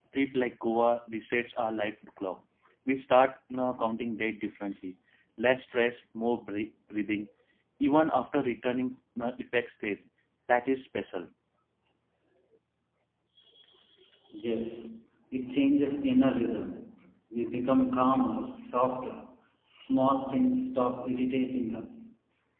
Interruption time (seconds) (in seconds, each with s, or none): none